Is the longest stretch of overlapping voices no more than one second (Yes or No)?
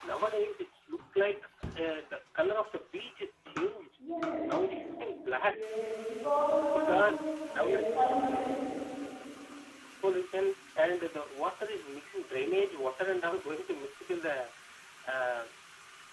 Yes